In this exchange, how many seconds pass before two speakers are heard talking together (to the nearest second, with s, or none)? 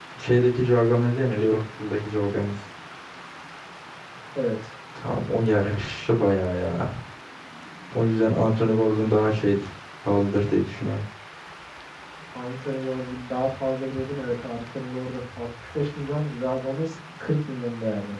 none